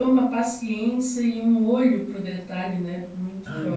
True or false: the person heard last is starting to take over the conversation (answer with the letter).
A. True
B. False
A